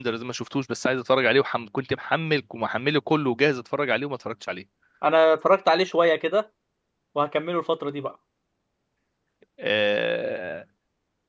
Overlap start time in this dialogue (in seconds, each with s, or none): none